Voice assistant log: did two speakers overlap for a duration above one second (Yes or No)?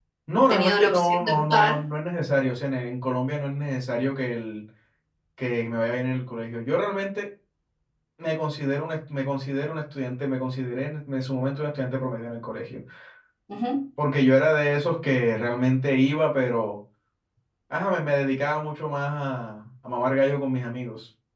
Yes